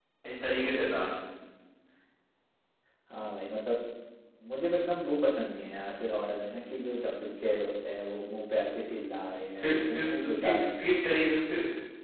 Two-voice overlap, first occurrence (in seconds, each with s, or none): 9.6 s